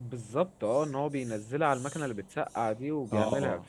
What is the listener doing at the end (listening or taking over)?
taking over